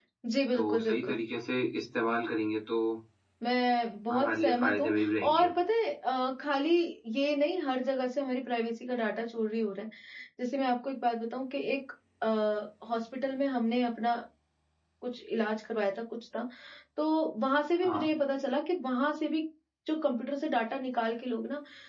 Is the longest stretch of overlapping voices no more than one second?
No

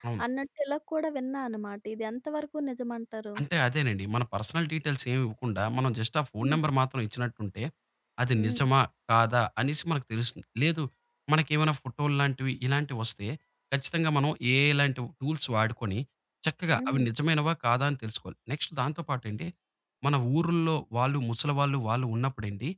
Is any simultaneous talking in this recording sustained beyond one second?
No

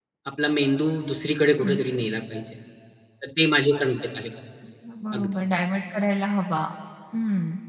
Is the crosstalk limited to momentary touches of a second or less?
Yes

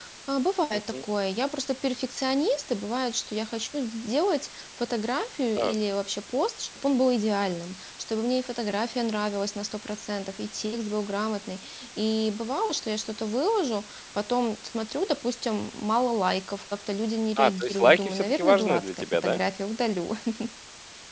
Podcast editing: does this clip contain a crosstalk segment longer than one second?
Yes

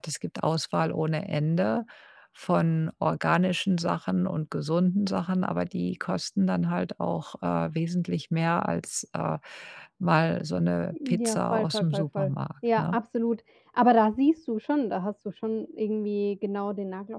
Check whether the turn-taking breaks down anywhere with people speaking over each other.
Yes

